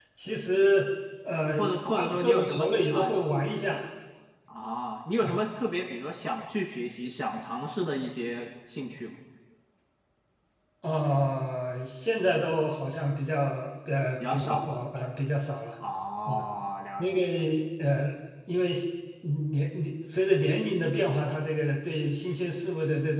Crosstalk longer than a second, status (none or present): present